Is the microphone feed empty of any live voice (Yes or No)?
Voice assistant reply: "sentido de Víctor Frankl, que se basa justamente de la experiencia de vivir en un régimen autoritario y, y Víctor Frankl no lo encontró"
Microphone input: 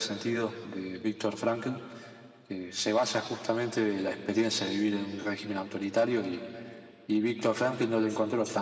Yes